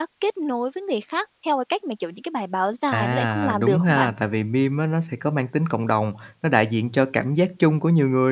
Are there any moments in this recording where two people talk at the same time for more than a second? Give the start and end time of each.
2.9-4.1

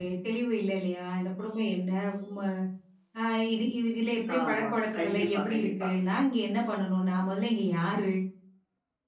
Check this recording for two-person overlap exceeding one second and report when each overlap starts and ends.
4.4-5.9

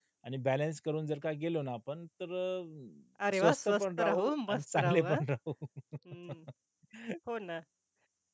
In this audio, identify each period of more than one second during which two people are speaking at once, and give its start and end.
3.3-5.2

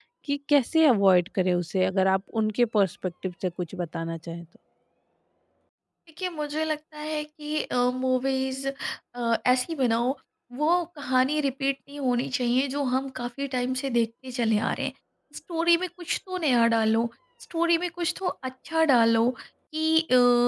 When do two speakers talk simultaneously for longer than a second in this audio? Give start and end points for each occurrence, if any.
none

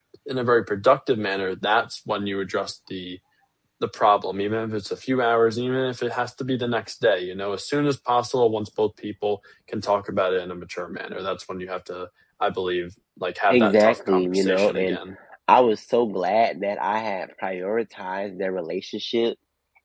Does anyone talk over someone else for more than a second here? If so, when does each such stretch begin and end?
13.5-15.0

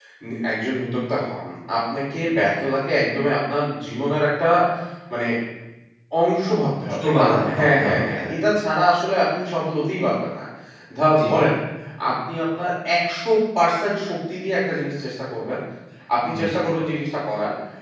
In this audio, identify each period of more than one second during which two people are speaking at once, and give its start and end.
6.9-8.3

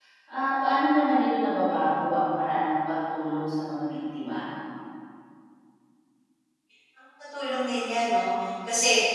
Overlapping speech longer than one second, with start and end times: none

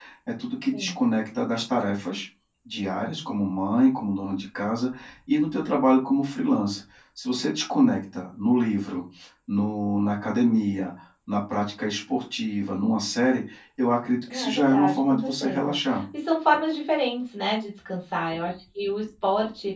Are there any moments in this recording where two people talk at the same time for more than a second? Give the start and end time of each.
14.3-15.8

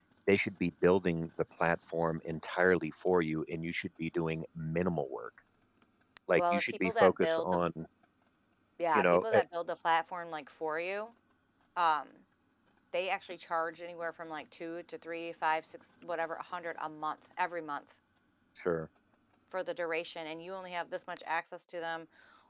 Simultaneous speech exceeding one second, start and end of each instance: 6.3-7.6

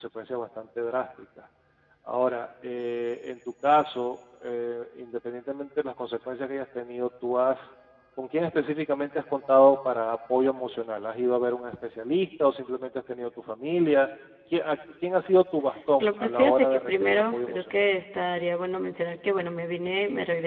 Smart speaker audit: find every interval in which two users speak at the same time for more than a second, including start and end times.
16.0-17.6

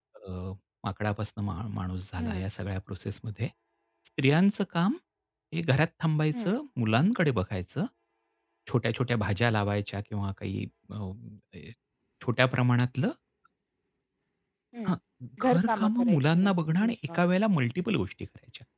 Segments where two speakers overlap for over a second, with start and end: 15.4-17.2

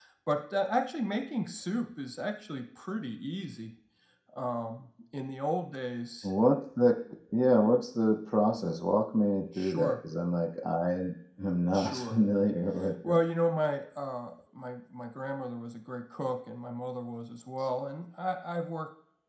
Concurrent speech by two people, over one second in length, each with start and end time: none

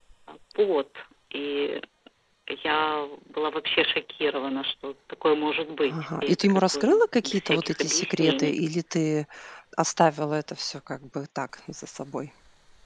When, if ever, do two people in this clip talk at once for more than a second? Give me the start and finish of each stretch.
5.9-8.6

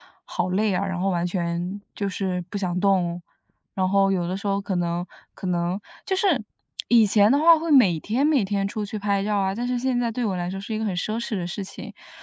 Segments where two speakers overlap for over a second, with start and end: none

